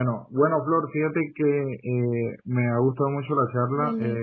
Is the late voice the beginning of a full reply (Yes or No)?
No